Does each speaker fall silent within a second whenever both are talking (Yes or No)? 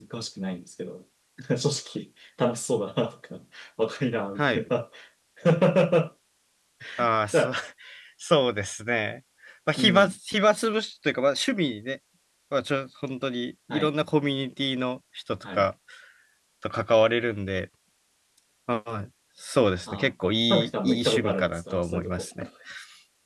No